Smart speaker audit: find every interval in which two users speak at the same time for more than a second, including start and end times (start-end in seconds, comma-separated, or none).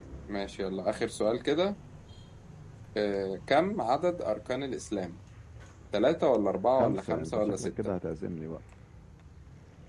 6.7-7.9